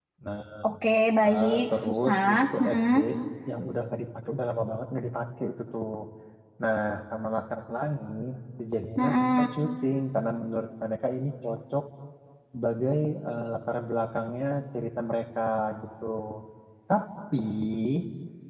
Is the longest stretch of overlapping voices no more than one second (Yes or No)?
No